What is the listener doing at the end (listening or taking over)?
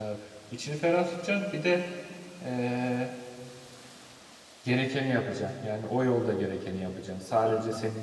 listening